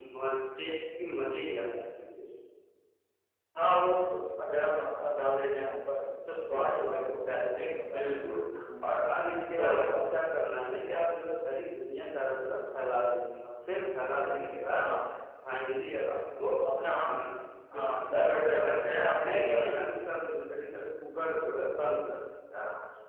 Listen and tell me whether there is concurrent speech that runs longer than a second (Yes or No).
Yes